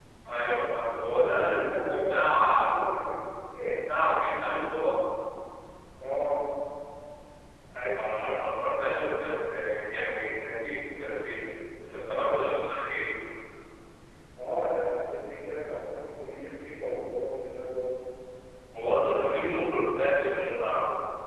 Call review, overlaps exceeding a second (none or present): present